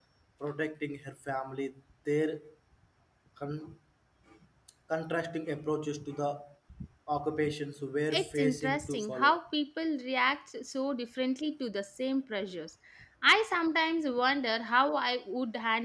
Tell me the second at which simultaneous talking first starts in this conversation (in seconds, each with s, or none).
8.1 s